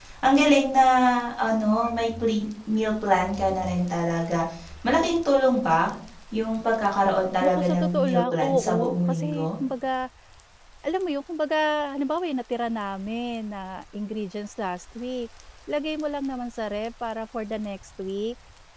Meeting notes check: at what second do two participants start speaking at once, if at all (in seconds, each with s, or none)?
7.4 s